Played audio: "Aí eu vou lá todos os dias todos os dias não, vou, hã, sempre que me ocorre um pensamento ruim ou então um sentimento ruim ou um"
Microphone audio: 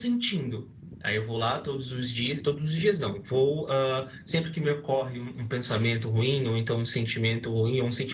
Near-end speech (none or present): none